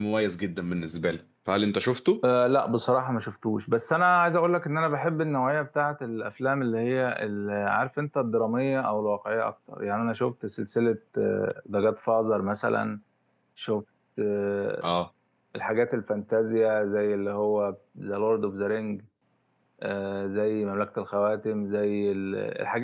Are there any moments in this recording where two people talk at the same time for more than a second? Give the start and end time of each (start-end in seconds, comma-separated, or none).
none